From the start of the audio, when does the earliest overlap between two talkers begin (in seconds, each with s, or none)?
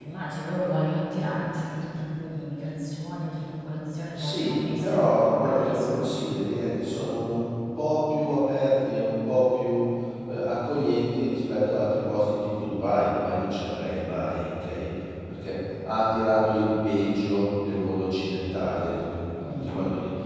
4.1 s